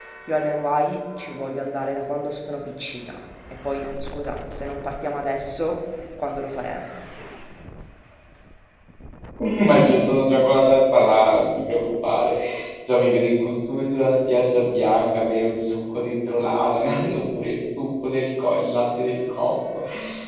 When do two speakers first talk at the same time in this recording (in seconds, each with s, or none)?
none